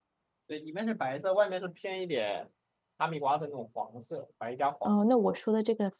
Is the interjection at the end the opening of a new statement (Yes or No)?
Yes